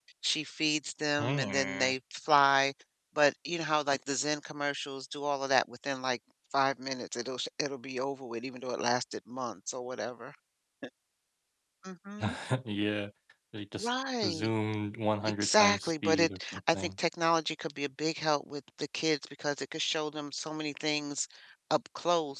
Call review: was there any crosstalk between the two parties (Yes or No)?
Yes